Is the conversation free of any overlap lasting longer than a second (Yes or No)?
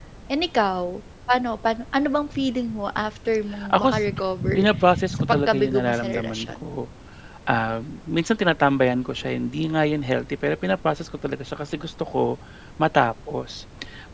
No